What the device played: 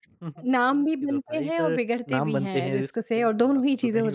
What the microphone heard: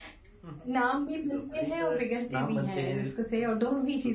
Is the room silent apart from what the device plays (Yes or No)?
Yes